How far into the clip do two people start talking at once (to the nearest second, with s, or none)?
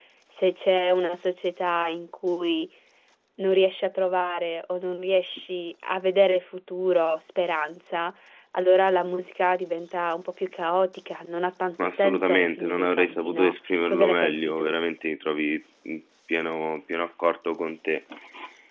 12 s